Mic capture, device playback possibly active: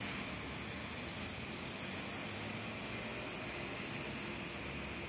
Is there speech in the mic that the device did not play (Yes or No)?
No